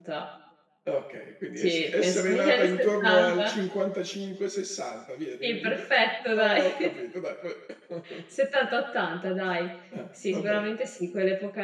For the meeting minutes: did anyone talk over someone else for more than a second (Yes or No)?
Yes